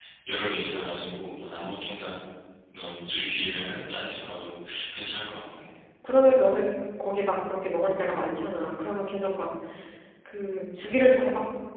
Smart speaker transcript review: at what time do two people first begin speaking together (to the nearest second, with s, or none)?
none